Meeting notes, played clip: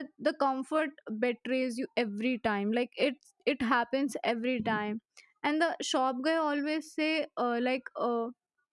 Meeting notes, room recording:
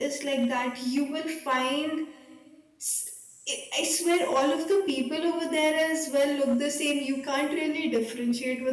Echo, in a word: none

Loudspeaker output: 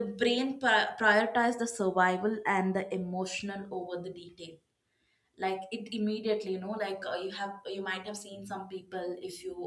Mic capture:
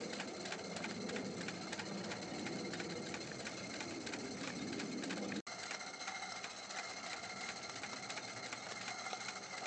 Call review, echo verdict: none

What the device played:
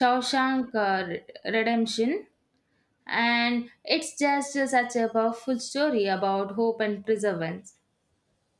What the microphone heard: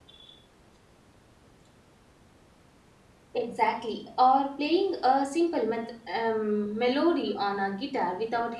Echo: none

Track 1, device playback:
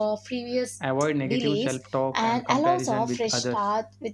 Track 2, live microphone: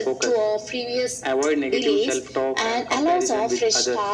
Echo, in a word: present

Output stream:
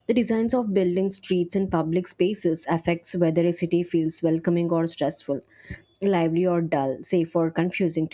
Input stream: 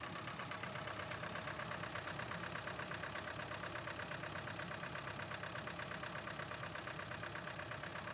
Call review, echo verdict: none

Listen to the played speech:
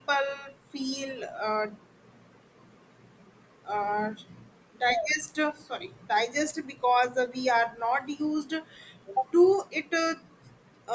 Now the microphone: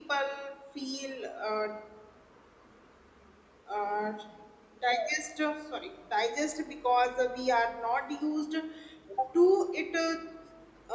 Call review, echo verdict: present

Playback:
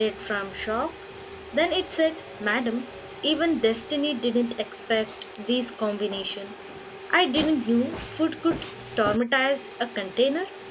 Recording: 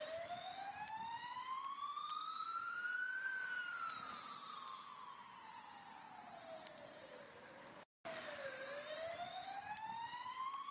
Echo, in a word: none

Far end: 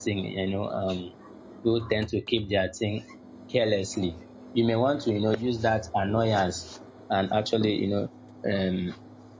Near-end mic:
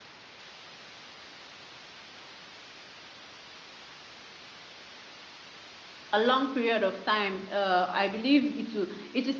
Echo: none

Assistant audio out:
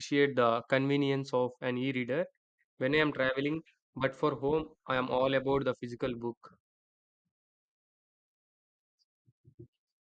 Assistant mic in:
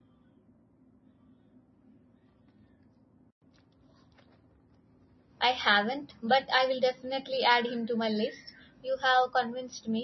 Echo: none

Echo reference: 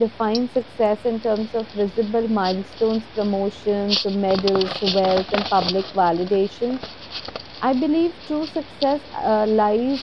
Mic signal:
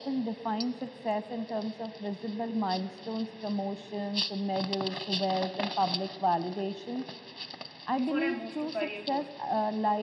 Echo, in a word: present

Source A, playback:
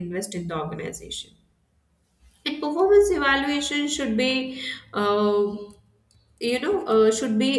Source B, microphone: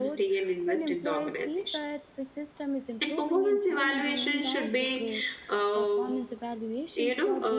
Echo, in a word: present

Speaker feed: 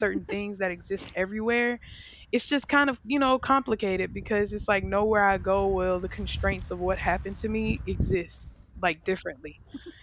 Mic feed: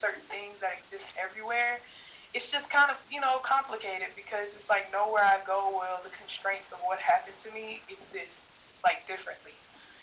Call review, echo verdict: present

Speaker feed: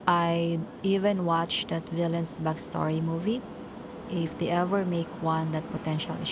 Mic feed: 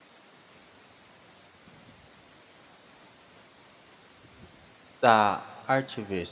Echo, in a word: none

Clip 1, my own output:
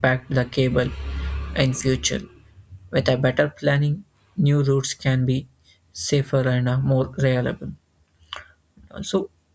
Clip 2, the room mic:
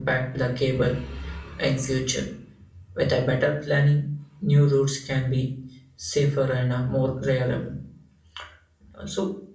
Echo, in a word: present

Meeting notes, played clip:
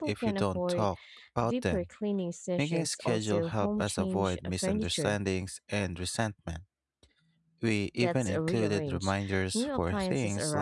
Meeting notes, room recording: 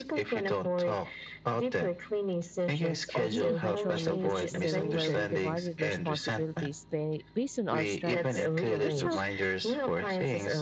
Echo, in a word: present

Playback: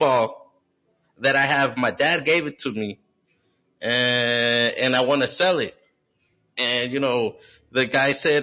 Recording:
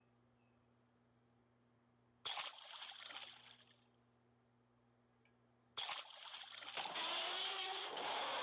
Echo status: none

